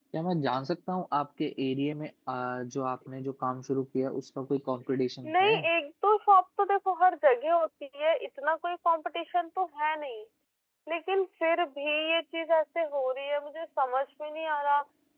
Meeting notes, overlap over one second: none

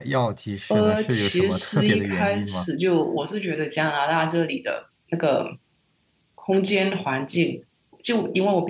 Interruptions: present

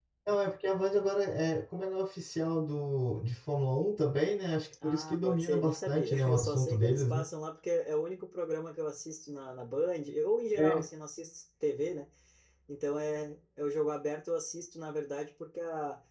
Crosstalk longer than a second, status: present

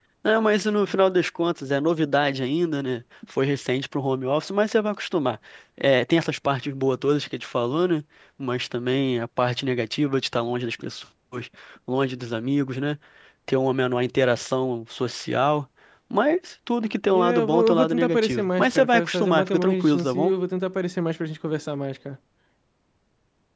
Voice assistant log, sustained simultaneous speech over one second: present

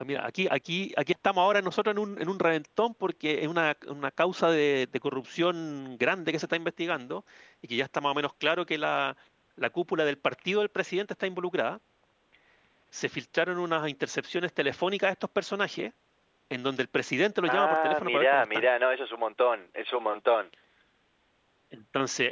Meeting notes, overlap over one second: present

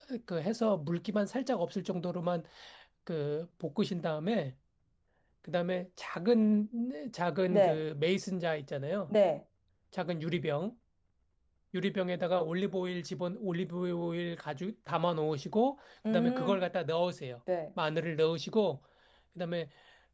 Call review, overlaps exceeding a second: none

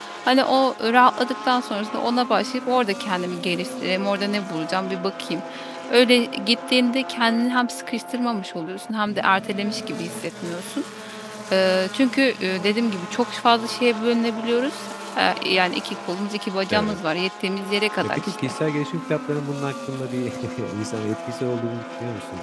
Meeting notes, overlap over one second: none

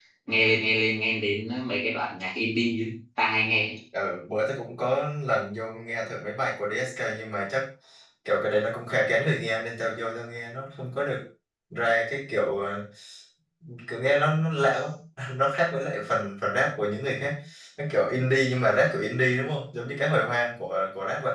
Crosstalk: none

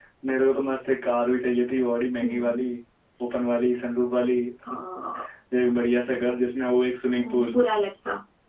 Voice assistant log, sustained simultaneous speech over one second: none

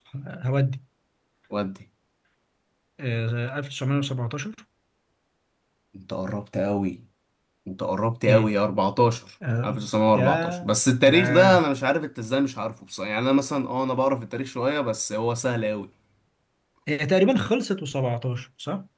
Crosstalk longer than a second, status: none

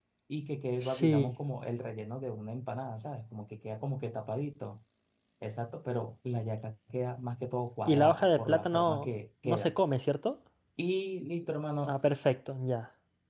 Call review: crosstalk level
present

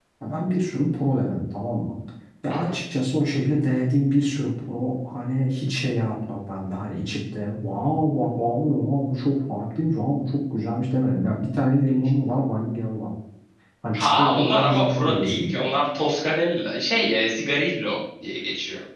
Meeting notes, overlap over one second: present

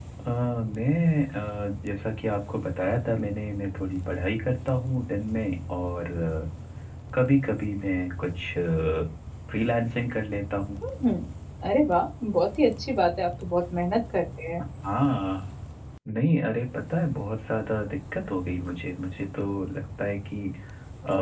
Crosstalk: none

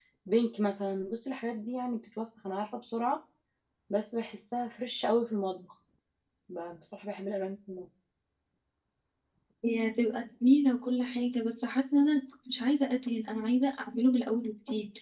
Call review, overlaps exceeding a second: none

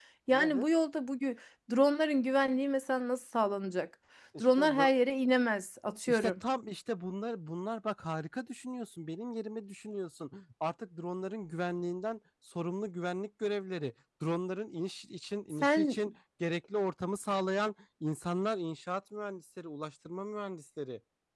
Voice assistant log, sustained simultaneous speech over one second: none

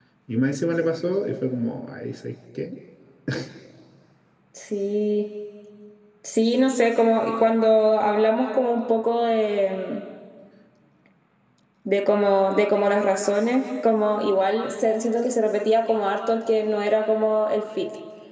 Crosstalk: none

